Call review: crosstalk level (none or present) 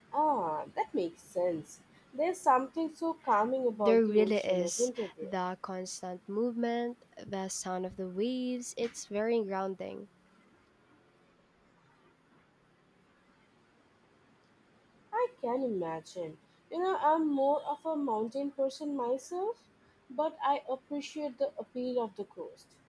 present